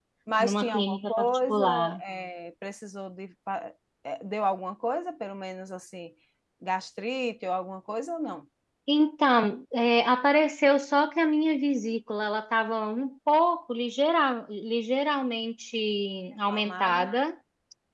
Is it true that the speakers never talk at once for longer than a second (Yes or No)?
No